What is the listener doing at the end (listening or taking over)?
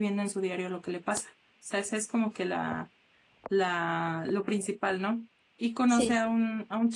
listening